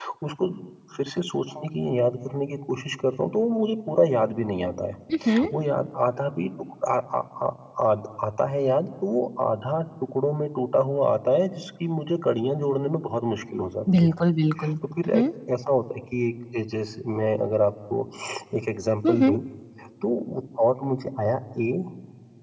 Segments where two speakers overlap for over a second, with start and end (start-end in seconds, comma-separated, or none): none